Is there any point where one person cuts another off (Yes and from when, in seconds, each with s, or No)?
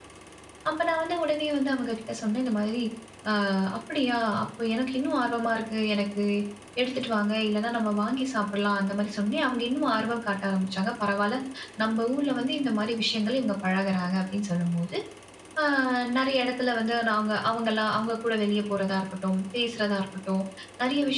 No